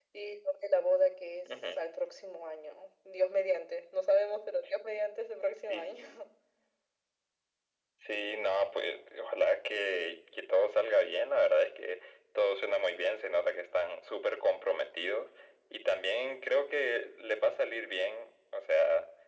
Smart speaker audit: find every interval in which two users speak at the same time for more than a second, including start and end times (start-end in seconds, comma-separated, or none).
none